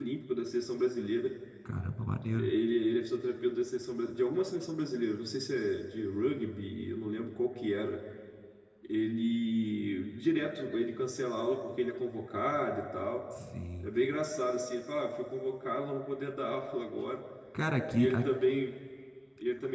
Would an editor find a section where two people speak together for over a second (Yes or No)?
No